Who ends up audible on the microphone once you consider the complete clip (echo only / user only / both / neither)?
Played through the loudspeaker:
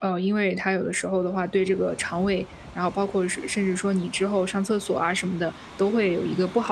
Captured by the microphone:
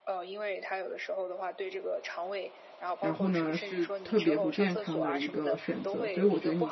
both